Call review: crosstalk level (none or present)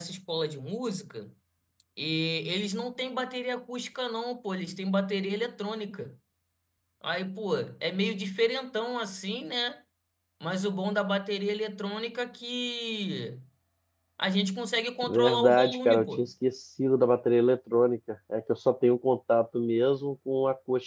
present